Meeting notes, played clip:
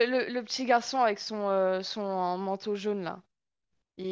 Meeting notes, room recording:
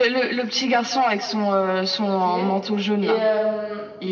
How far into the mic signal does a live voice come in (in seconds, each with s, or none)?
2.0 s